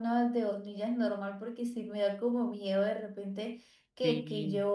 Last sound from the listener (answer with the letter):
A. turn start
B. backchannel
B